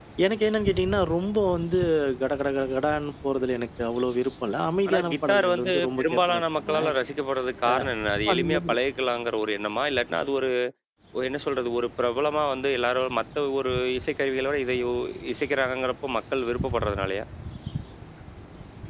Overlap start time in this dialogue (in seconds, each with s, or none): 4.9 s